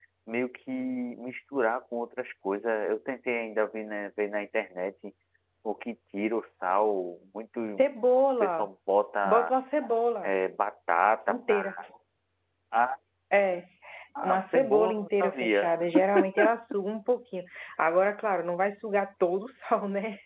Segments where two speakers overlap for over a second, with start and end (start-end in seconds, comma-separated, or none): 14.2-15.7